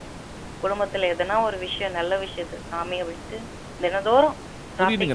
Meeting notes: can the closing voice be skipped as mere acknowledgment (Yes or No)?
No